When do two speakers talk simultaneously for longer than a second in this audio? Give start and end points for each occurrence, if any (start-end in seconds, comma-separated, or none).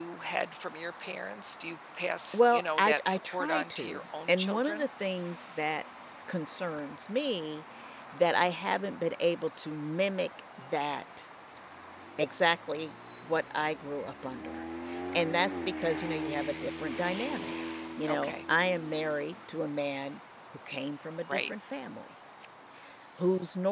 2.3-4.8